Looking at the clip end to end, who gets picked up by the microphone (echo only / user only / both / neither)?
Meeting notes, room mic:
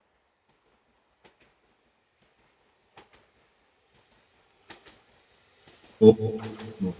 user only